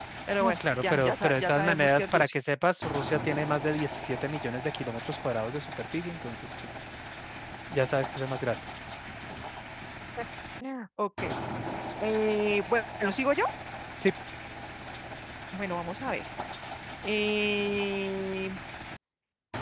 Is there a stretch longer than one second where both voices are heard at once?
Yes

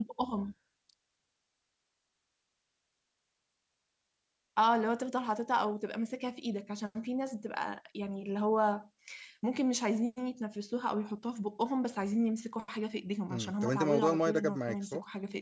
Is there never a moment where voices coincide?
No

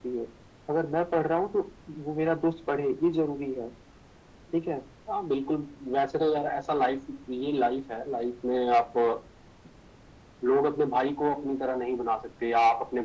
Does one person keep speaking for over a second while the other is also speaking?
No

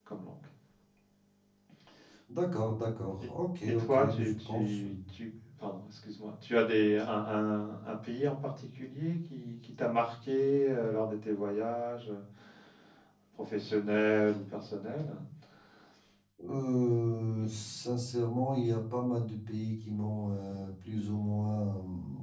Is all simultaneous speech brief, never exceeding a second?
No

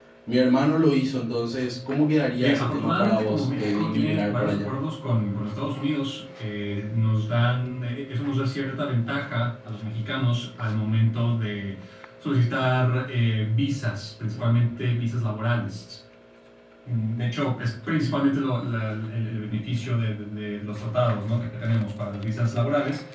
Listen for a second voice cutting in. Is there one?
Yes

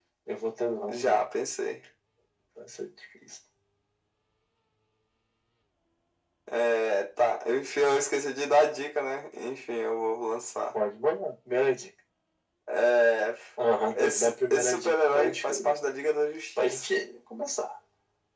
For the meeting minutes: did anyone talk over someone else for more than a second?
Yes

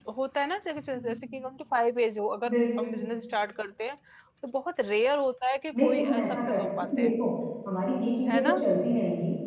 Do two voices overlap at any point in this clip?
Yes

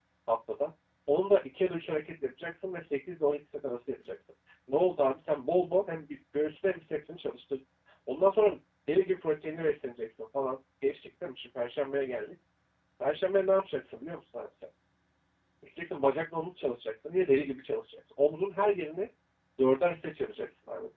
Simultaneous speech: No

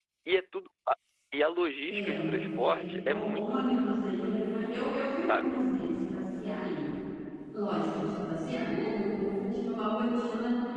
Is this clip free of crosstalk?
No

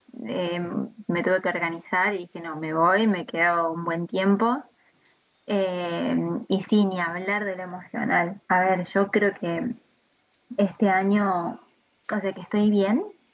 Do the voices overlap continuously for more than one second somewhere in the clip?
No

